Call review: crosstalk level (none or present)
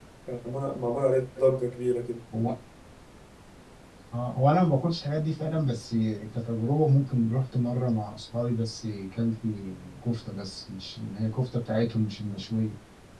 none